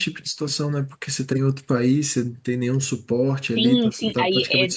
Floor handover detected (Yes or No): Yes